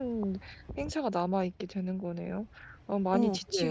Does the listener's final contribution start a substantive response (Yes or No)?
Yes